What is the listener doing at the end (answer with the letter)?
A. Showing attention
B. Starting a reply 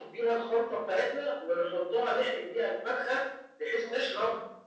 A